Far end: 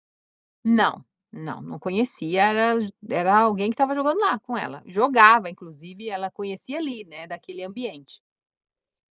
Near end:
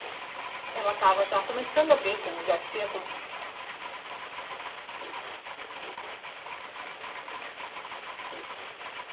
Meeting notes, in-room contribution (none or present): present